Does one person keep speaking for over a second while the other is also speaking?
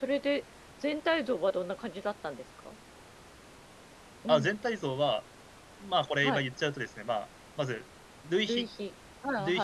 No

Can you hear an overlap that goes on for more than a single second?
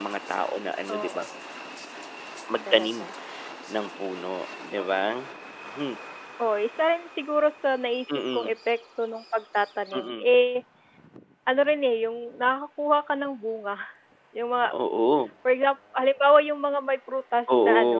No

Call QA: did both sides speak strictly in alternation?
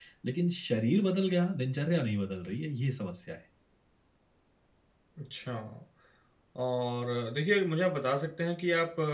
Yes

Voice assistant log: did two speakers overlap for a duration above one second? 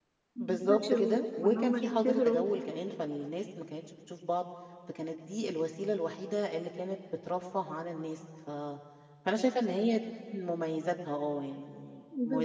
Yes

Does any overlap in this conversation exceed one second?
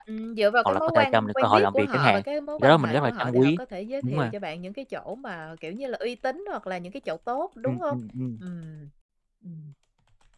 Yes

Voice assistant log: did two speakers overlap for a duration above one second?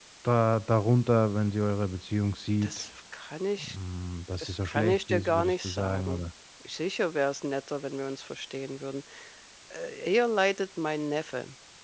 Yes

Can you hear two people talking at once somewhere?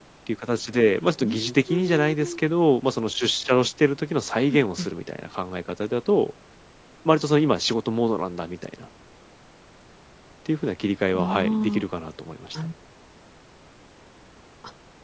Yes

